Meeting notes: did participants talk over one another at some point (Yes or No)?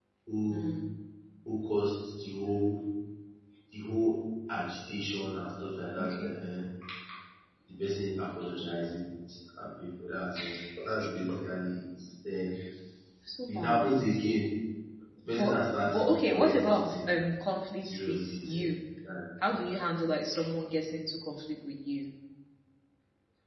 Yes